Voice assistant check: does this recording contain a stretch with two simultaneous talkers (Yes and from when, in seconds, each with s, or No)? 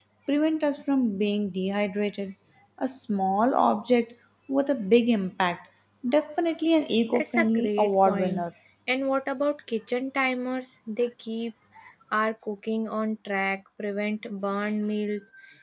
Yes, from 7.1 s